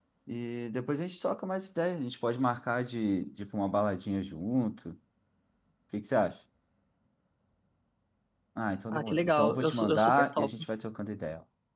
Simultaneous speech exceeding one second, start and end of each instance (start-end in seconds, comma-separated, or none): 8.9-10.5